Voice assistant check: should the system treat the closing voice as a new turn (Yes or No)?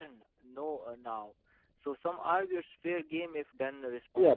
Yes